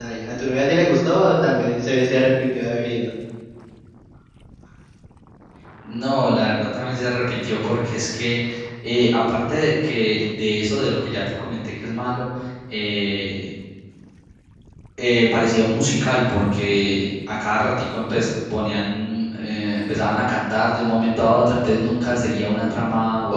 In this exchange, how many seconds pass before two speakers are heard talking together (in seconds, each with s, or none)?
none